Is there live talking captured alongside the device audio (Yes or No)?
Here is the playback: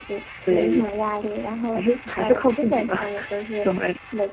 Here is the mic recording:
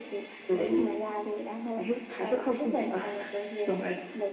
No